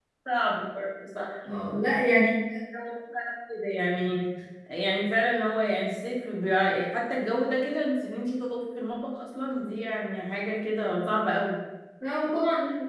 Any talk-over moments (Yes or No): No